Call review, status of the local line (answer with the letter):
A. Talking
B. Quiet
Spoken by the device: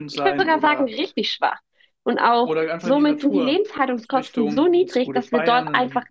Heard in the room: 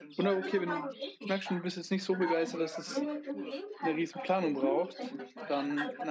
A